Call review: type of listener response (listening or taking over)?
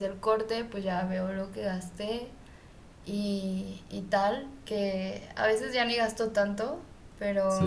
listening